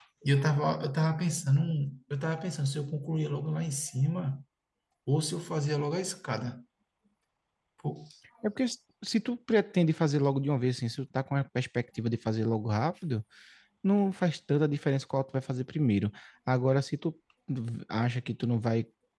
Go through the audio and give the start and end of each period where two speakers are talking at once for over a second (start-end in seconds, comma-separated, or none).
none